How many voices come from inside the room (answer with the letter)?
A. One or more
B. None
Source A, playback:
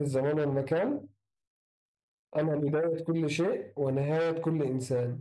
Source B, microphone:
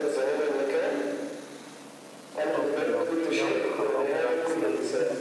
A